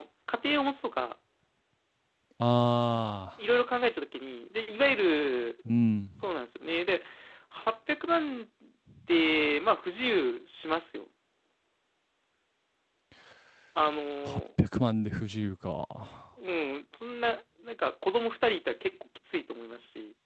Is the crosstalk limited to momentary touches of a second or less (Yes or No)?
Yes